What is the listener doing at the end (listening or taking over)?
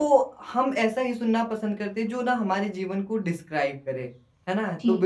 listening